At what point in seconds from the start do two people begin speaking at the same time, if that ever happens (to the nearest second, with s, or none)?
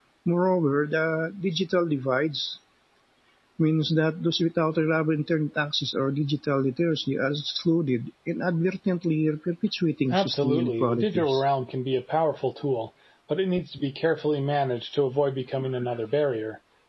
10 s